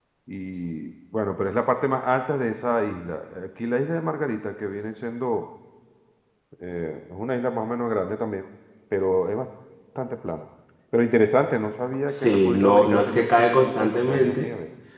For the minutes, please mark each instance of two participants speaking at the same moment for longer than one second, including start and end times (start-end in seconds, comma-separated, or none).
12.1-14.5